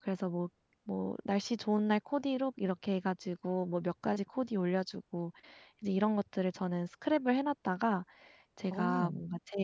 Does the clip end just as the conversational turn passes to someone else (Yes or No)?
No